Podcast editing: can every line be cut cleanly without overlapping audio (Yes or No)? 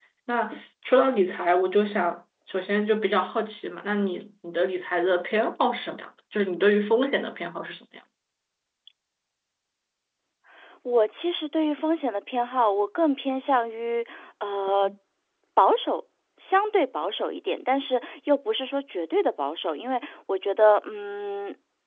Yes